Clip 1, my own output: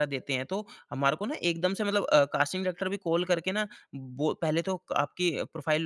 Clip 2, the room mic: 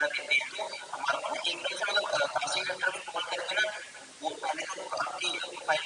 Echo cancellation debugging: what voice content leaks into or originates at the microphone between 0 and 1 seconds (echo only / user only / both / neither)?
echo only